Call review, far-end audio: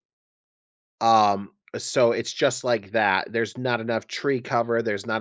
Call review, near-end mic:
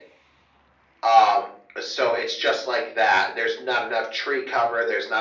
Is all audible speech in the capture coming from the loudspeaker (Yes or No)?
Yes